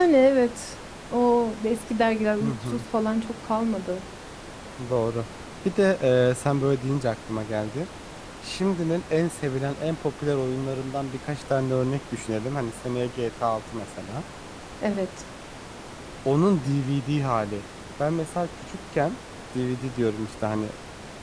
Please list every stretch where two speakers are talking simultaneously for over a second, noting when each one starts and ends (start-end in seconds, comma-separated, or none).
none